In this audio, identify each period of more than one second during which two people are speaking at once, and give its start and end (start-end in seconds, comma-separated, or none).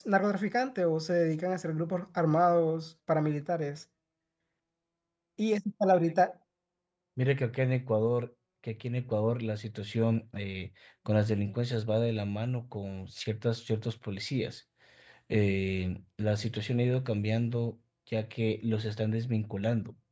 none